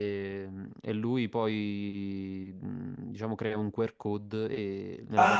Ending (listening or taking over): taking over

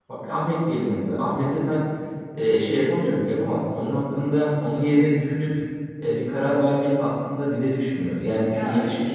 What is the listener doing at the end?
taking over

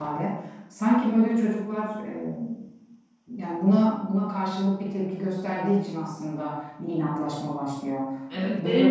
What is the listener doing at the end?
taking over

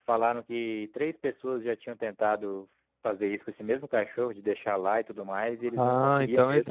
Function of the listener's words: taking over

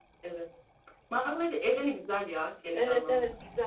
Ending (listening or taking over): taking over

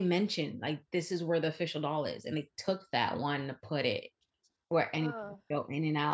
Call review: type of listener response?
listening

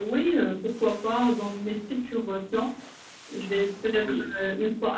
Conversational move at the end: listening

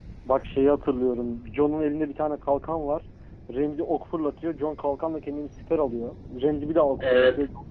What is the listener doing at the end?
listening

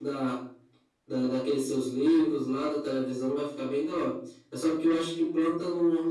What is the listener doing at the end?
listening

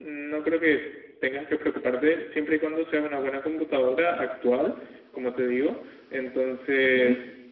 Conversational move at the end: listening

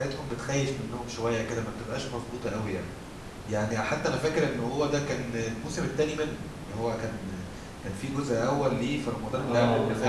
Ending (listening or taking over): taking over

